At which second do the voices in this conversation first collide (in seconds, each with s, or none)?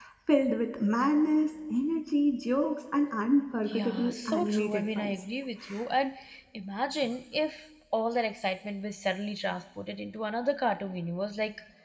3.7 s